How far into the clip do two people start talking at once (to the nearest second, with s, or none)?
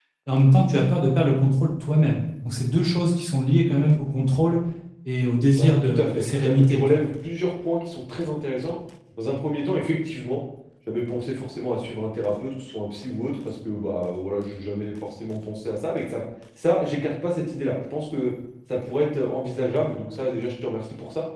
6 s